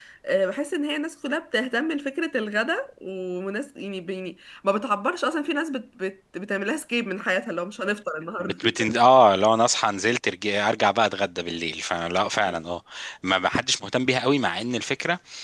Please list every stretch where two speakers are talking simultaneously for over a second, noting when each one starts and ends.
none

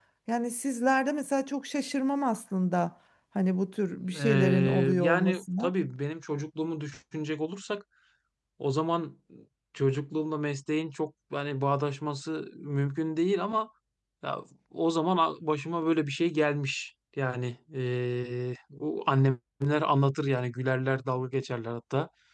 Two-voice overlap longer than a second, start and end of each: 4.1-5.7

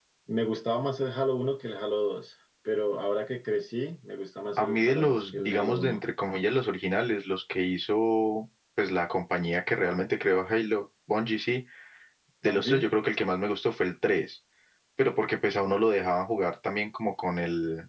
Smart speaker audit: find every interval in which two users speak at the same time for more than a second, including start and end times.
4.6-6.0

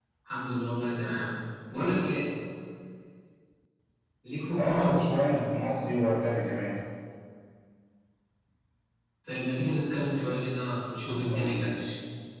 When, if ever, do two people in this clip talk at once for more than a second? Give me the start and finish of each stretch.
none

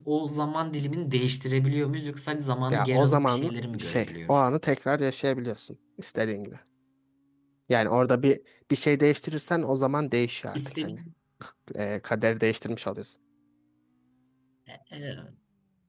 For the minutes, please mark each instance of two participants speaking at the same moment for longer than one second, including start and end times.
2.7-4.4

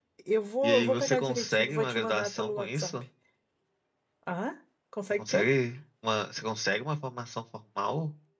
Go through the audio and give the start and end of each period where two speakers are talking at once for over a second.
0.6-2.9

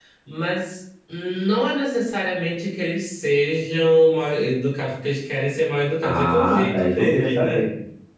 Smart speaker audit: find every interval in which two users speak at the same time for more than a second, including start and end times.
6.0-7.7

